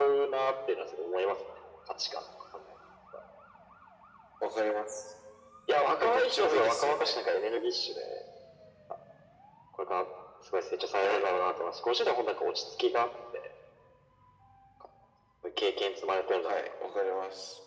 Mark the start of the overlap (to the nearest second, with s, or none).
6 s